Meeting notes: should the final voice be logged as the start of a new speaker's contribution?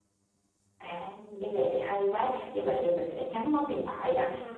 No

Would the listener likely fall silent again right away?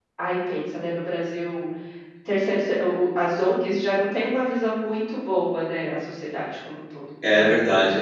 No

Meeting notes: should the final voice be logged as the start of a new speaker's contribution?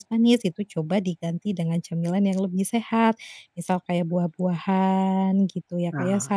No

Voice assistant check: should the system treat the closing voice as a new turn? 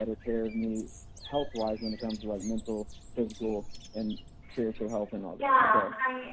Yes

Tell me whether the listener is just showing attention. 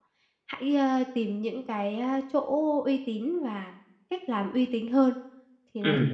No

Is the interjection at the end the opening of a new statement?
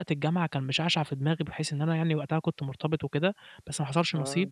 No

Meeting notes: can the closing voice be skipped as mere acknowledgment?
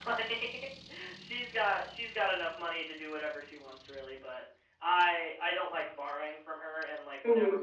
Yes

